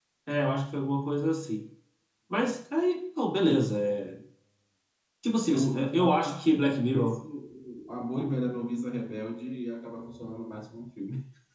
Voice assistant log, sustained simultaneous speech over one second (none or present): present